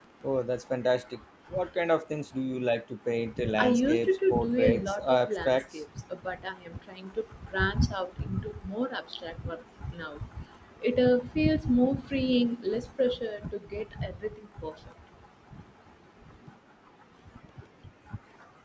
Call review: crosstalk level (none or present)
present